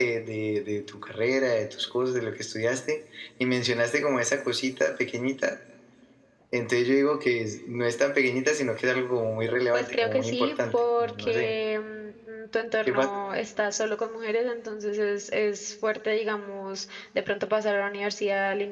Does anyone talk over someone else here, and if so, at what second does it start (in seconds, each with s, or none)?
9.7 s